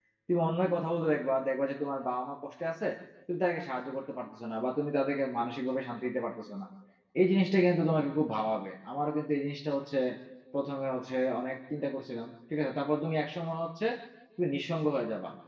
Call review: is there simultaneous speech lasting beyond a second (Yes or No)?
No